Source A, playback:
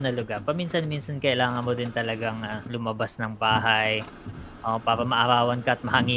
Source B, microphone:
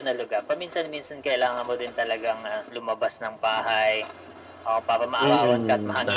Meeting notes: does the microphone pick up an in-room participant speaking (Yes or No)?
Yes